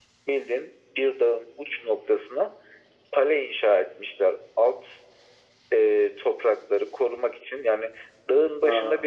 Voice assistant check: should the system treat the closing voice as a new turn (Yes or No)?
No